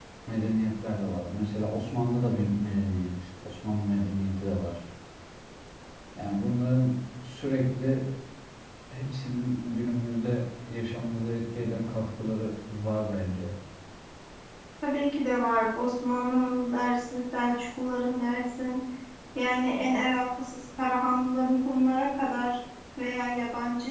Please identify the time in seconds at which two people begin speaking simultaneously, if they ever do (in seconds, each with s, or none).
none